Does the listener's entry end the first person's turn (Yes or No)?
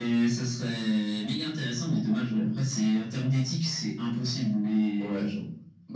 Yes